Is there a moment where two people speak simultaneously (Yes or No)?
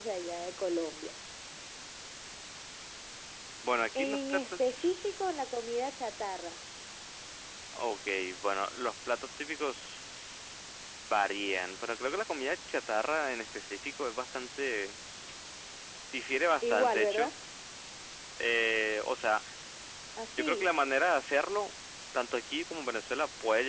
Yes